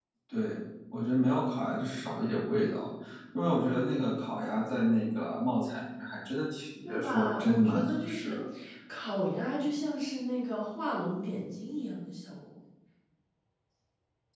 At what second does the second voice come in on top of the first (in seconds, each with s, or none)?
6.8 s